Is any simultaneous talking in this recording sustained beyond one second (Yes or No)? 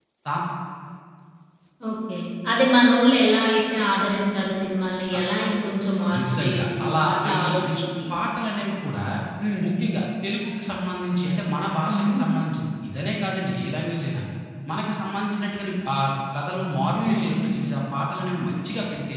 Yes